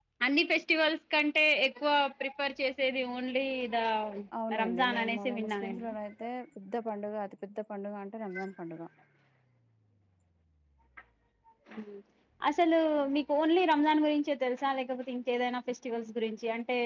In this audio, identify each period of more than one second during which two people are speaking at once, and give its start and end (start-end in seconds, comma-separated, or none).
4.6-5.8